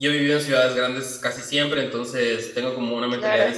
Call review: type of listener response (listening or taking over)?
listening